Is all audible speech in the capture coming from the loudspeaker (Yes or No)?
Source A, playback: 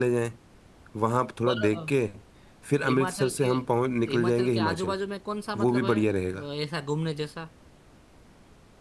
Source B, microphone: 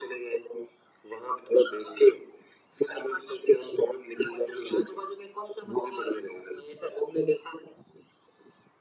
Yes